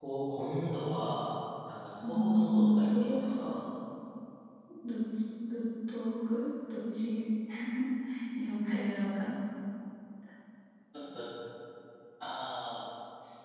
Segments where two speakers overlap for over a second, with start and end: 2.0-3.5

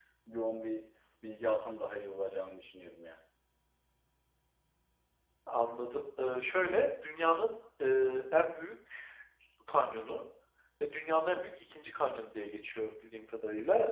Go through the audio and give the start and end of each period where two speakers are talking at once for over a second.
none

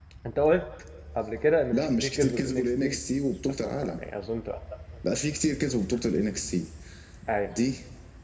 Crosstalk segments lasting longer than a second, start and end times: 1.7-3.0

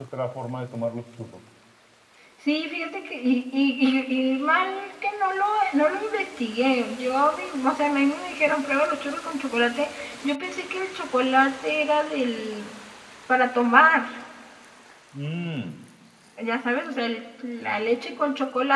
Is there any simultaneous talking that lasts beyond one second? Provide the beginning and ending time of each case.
none

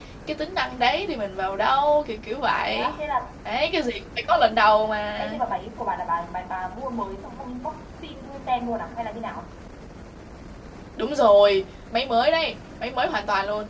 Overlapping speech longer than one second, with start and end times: none

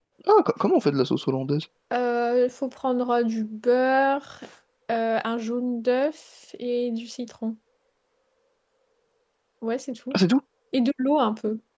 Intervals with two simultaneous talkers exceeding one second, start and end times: none

